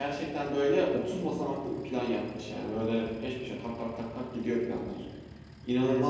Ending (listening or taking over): taking over